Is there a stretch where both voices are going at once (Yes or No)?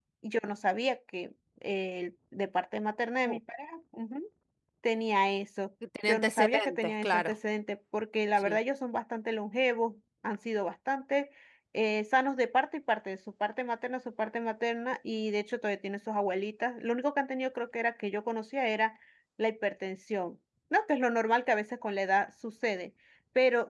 Yes